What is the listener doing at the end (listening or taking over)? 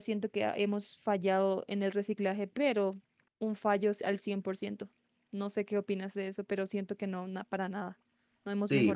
taking over